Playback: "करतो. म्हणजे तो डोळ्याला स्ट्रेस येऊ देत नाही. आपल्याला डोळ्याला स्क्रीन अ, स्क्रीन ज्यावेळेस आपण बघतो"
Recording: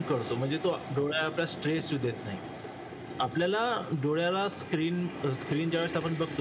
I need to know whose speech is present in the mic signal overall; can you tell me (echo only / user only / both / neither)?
echo only